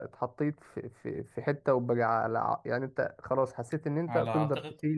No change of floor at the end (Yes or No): Yes